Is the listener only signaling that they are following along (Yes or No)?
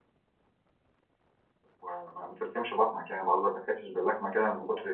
No